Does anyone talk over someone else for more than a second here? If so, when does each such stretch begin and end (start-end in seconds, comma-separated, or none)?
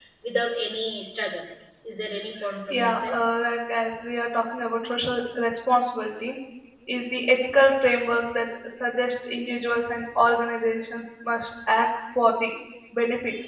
none